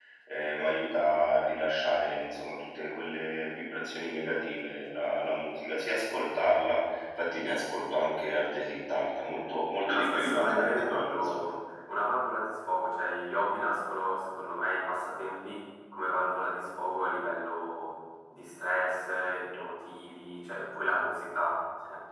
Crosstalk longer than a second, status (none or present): present